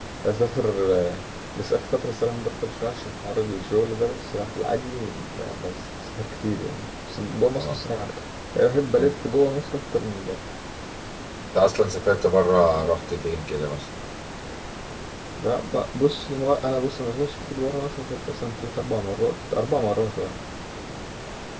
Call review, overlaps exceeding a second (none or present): none